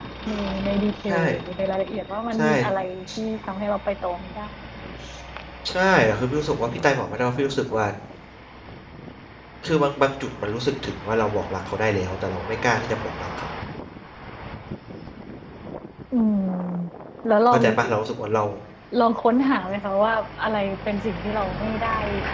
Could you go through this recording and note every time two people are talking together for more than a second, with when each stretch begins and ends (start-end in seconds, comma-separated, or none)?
none